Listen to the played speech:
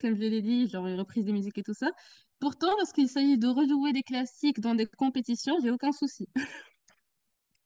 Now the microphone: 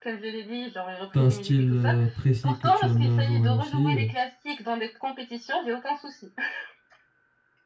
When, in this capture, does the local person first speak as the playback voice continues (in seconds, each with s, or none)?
1.1 s